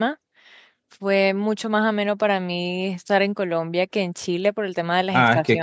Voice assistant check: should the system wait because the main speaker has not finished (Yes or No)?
No